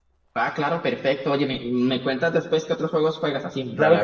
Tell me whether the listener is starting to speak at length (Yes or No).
Yes